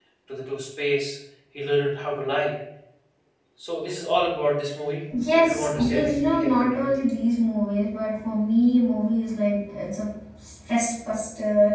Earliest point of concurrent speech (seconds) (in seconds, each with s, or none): 5.4 s